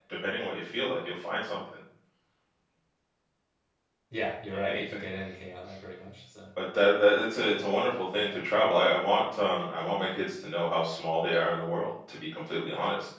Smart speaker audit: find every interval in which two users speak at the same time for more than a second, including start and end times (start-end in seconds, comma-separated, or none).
none